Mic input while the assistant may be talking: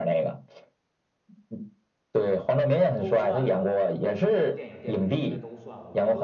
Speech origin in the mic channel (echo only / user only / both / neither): both